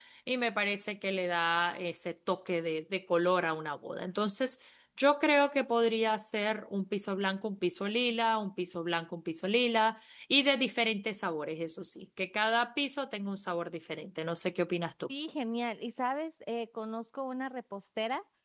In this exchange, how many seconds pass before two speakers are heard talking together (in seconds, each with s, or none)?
none